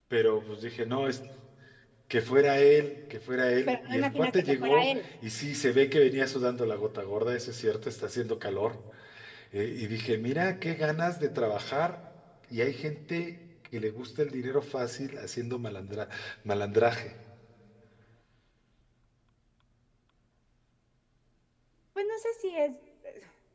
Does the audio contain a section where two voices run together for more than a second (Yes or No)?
Yes